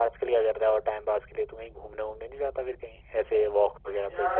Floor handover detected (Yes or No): Yes